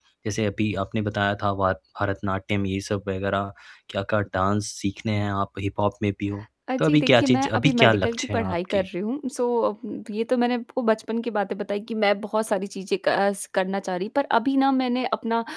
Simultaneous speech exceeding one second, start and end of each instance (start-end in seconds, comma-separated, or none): 6.8-8.8